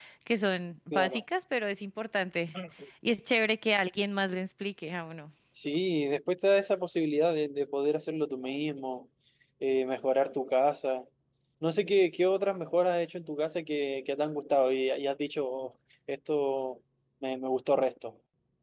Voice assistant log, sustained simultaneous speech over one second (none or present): none